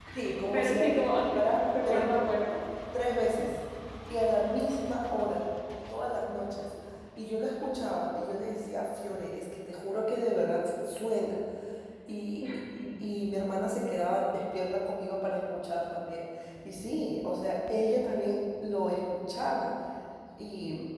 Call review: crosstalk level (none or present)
present